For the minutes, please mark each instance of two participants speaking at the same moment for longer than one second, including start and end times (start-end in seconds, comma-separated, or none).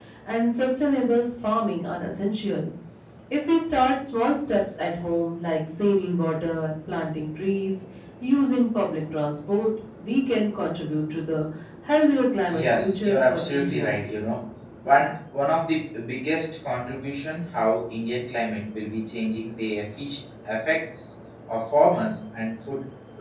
12.6-13.9